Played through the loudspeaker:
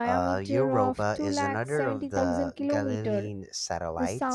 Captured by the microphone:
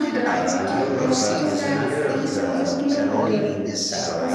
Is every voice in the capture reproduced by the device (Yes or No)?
No